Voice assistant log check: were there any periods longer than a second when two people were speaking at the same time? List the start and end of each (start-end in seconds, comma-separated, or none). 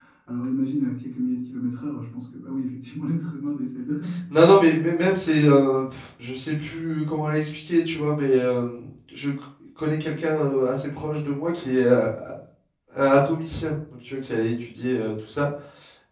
none